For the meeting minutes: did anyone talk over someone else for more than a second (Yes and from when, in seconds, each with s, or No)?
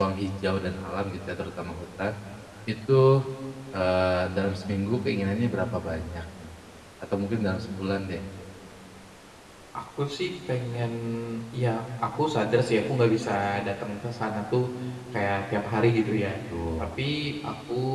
No